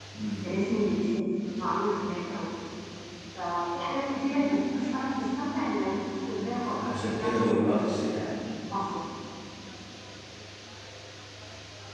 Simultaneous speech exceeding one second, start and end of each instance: 6.8-8.3

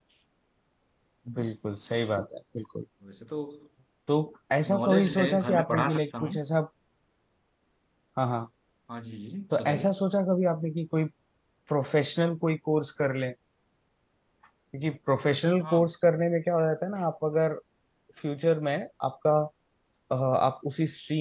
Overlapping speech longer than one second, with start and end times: 4.7-6.4

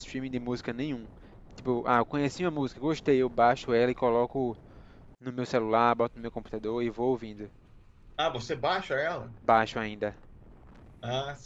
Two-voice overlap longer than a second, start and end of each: none

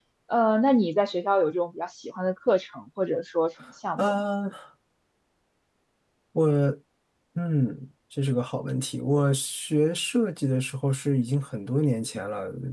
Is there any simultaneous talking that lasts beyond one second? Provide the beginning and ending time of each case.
none

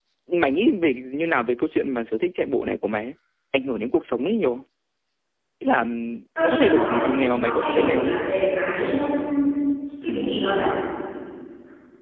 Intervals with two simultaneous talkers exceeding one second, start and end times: 6.4-8.2

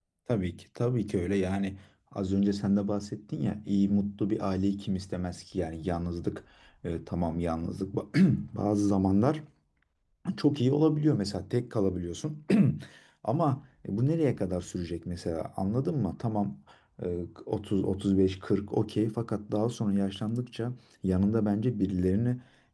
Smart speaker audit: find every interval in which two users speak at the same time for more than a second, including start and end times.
none

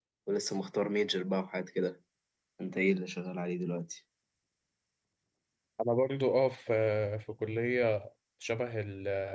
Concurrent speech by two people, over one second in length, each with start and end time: none

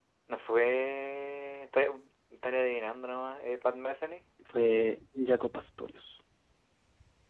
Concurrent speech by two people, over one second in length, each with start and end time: none

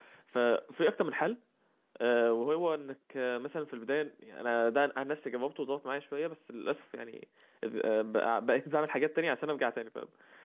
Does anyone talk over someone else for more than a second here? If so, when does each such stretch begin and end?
none

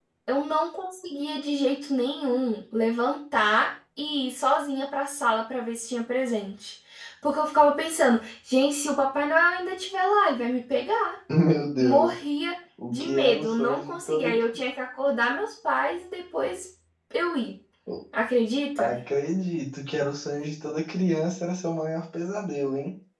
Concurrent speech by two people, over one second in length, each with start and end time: 12.9-14.3

